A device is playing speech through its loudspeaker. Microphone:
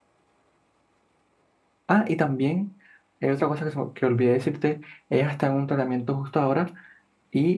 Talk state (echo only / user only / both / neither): user only